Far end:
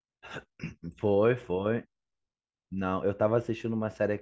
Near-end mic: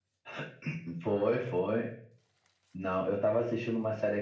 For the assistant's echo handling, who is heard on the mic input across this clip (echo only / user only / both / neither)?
echo only